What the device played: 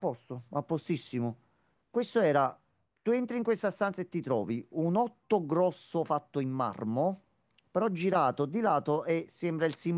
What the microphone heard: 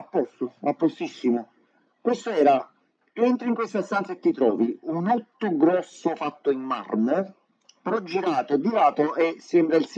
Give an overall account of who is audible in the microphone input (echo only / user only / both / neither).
echo only